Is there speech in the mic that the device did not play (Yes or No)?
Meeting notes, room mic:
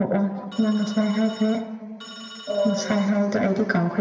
No